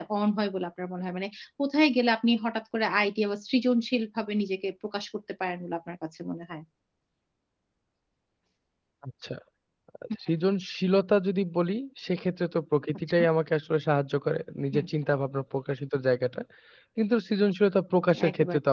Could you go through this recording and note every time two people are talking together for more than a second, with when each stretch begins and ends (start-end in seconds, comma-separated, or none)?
none